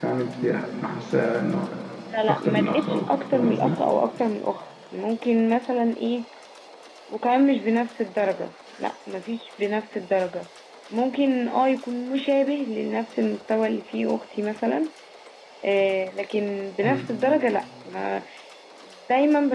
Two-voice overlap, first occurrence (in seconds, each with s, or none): 2.3 s